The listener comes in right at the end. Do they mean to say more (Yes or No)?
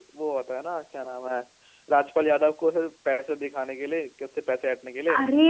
No